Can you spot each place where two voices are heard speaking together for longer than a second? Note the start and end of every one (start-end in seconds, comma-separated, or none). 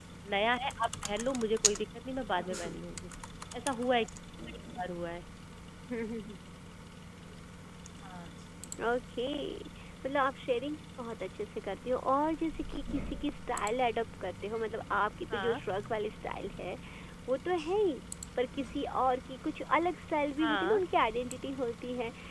none